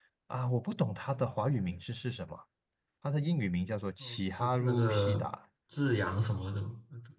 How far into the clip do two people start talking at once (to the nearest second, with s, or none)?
4 s